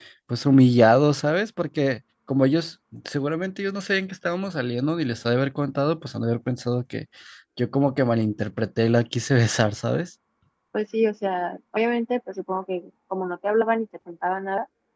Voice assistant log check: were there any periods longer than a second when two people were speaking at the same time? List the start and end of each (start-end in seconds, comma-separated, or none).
none